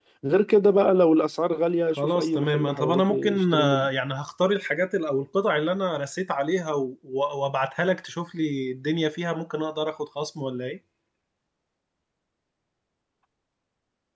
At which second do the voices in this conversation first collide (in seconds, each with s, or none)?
1.9 s